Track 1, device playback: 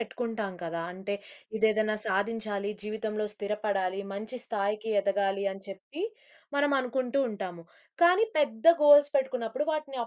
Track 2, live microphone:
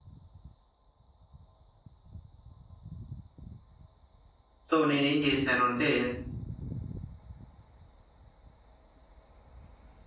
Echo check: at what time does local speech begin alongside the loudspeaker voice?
4.7 s

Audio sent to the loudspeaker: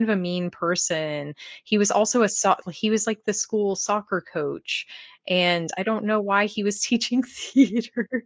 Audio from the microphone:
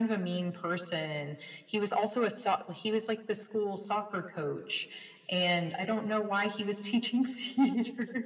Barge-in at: none

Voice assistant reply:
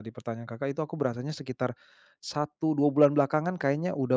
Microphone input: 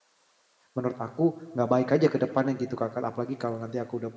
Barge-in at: 0.7 s

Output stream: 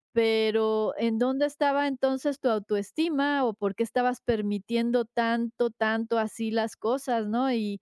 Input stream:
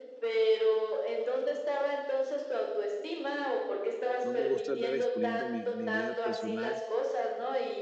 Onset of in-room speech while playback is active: 4.2 s

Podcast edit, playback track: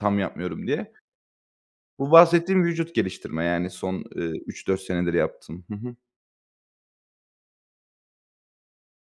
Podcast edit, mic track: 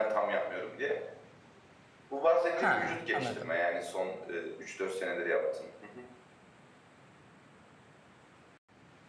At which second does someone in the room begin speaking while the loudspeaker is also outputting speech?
2.5 s

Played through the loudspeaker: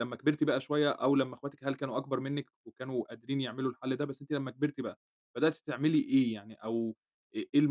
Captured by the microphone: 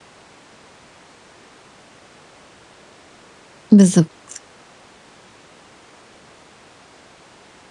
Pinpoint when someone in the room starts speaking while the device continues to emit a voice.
3.7 s

